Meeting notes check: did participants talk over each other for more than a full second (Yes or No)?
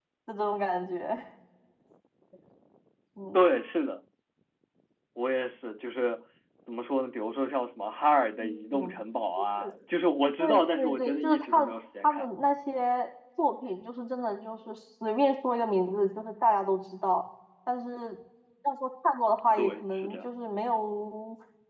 Yes